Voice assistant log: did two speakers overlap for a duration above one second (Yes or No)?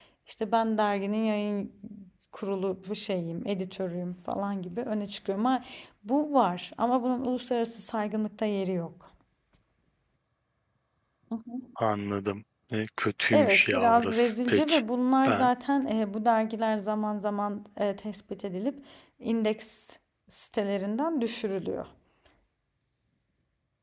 Yes